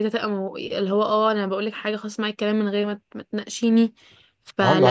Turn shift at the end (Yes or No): No